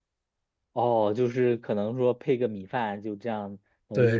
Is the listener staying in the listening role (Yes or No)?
No